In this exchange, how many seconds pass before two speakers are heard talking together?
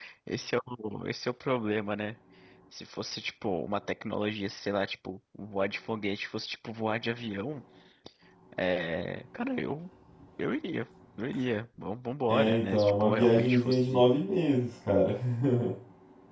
12.3 s

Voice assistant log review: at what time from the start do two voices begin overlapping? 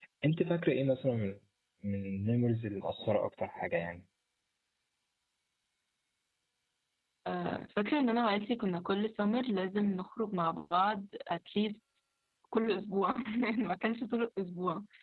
none

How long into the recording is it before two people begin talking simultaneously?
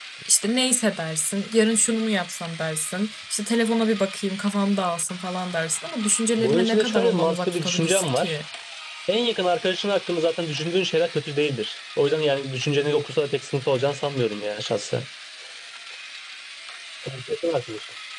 6.4 s

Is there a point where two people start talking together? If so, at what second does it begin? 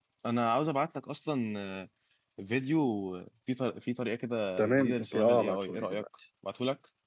4.6 s

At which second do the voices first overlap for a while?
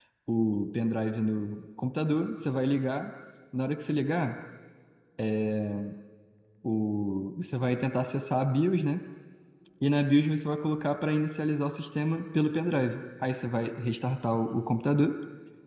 none

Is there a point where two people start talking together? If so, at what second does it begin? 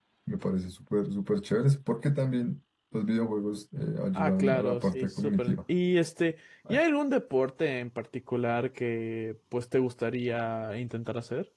4.2 s

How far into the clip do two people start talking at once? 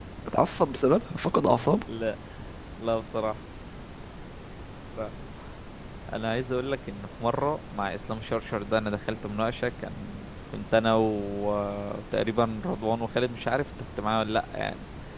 none

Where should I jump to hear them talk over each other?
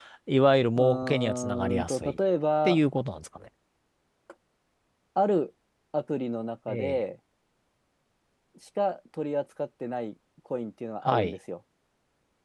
0.8 s

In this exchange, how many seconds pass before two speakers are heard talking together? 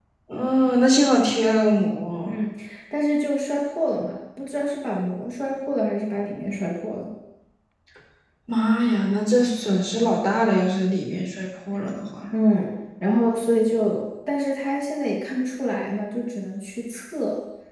none

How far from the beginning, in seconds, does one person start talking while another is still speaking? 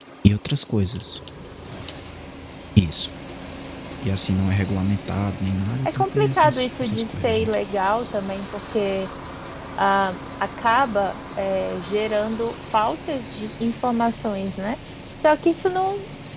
5.8 s

